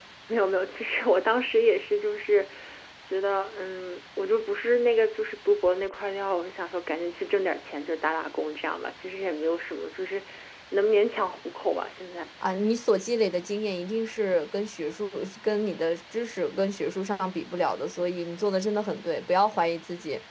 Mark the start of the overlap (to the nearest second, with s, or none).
none